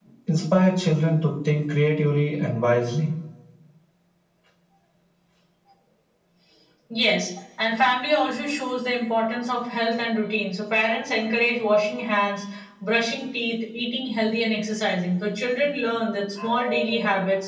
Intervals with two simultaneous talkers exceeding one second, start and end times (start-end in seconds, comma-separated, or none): none